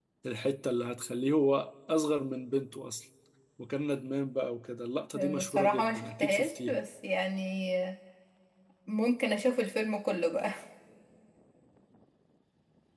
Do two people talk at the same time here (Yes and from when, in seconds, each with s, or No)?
Yes, from 5.1 s